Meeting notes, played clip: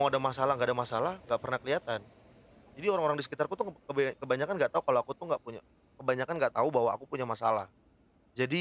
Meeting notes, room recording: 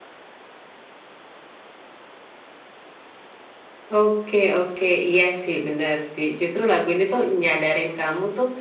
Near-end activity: present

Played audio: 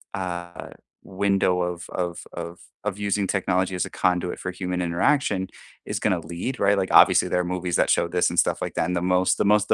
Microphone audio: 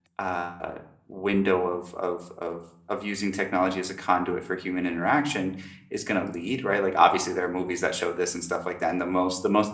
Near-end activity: none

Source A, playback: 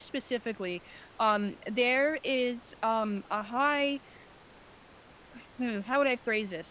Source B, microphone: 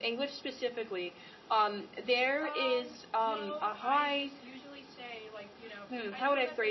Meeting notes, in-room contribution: present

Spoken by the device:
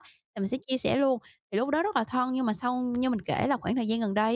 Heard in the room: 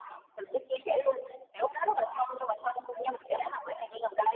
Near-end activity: present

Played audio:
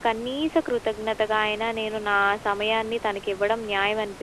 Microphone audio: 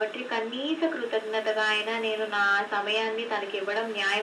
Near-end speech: none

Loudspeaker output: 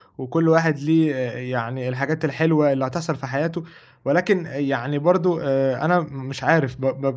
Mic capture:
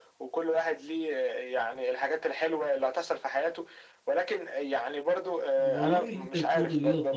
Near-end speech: present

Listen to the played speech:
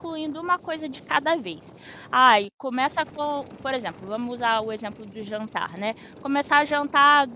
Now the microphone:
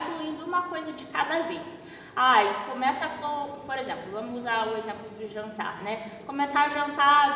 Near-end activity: none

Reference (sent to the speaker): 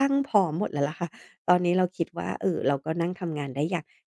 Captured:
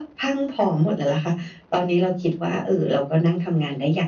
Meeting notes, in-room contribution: none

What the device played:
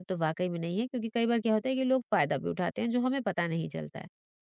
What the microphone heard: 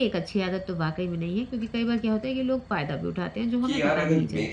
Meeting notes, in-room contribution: present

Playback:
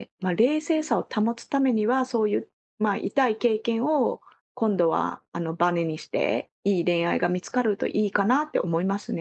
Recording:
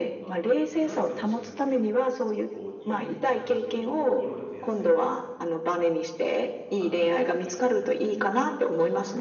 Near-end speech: present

